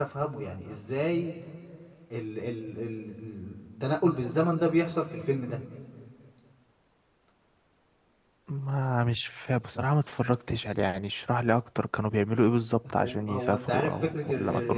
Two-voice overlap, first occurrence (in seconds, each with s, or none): 13.0 s